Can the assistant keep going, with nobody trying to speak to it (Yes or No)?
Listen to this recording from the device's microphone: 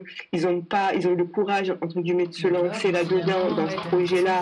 No